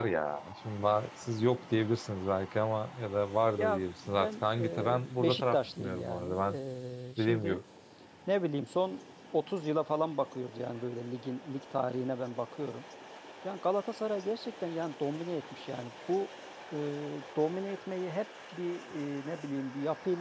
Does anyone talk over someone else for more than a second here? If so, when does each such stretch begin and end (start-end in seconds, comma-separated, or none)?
3.6-6.4